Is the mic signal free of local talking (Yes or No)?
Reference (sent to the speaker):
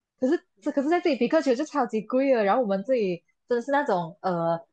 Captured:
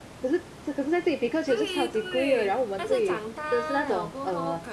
No